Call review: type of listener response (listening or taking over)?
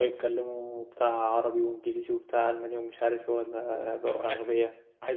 taking over